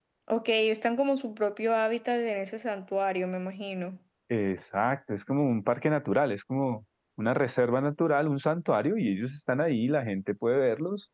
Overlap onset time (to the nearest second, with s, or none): none